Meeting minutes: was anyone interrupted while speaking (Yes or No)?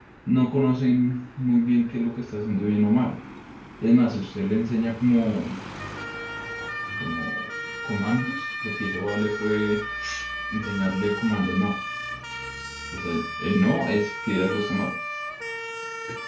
No